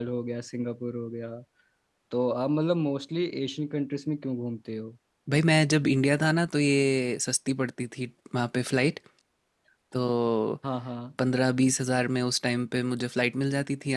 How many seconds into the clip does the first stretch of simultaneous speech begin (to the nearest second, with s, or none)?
none